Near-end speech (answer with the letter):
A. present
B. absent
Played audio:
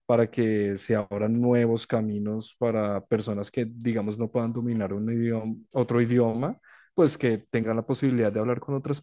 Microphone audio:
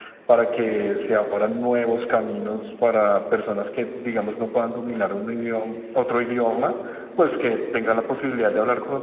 B